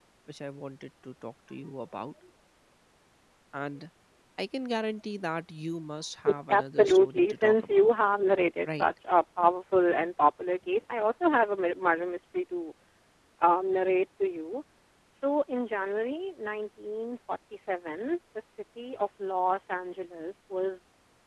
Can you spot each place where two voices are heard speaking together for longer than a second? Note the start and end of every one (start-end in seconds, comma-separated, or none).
6.5-7.9